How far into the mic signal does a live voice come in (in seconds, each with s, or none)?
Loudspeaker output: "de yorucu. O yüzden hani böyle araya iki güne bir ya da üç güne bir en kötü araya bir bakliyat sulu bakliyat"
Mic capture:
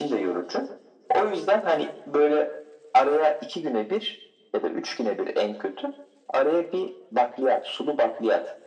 none